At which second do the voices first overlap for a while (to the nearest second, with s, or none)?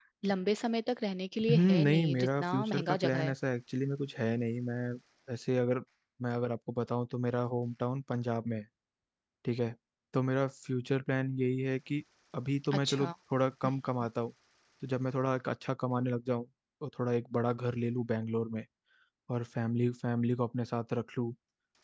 1 s